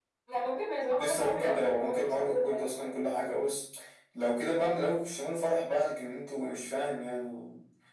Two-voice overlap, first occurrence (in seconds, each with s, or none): 0.9 s